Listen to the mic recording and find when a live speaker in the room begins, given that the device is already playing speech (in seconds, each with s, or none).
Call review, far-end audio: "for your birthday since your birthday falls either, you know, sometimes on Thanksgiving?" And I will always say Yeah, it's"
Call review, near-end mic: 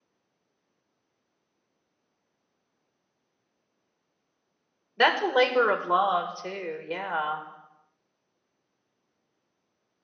5.0 s